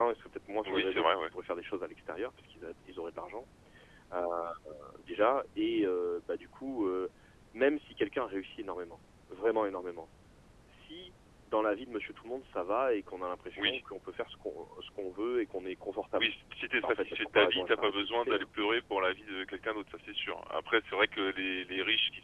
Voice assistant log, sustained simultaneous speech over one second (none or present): present